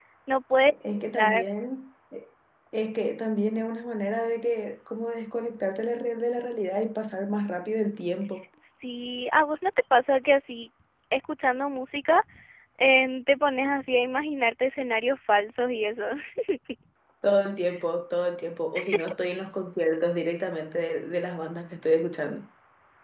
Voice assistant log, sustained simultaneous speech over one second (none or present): none